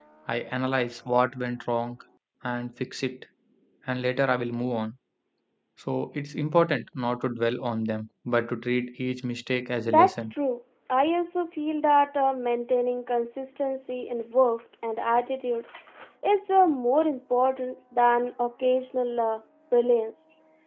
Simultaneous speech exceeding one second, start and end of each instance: none

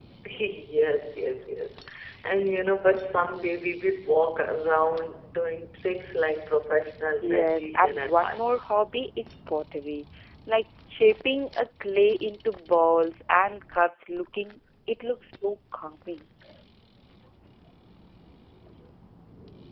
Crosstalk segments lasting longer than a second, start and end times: 7.2-8.6

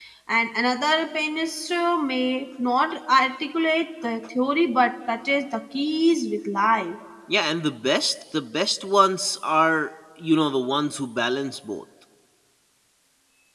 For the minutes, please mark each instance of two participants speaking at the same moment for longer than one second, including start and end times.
none

